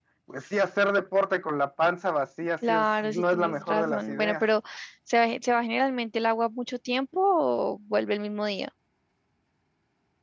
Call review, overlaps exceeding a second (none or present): present